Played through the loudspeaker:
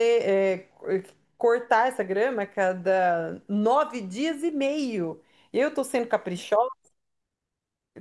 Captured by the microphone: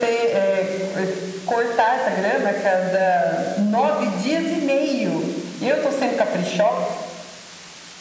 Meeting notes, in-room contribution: none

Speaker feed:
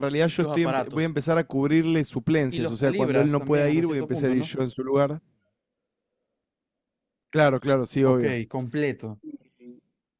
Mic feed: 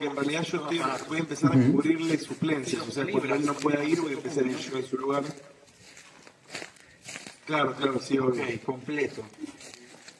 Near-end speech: present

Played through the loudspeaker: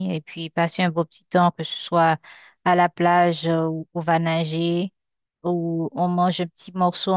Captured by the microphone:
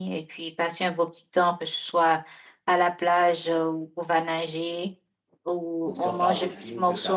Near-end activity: present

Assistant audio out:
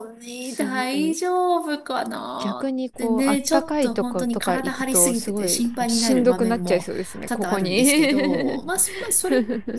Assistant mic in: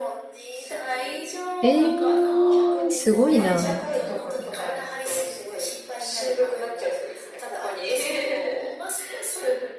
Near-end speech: present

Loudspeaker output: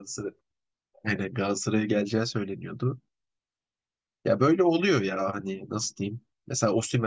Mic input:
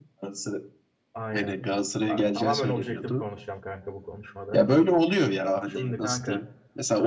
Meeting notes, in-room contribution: present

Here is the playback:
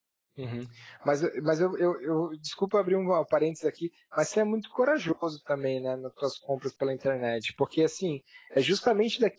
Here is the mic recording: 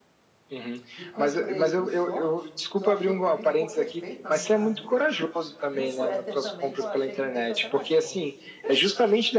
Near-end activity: present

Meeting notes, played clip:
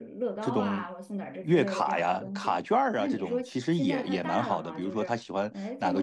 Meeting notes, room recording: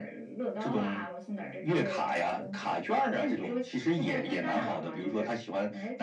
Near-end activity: none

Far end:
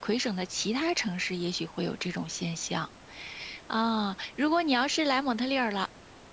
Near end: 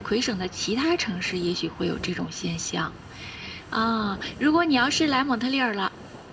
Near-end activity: none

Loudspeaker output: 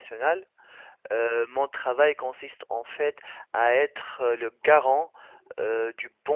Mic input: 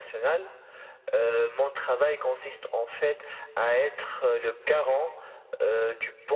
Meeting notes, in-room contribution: none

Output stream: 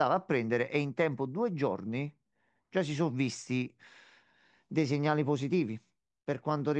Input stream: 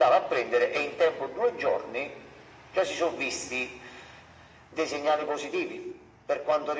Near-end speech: none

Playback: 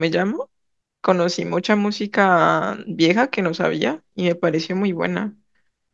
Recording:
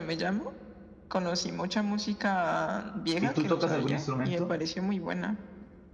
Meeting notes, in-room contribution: present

